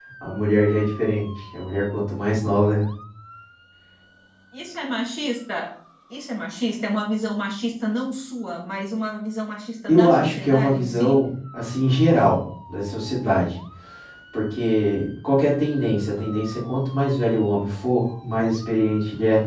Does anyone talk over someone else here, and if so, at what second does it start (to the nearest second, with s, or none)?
10 s